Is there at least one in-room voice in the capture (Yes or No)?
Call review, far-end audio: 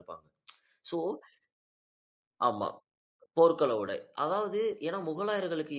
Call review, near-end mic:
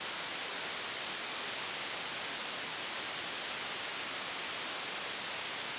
No